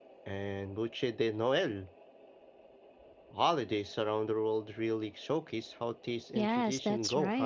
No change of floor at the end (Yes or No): No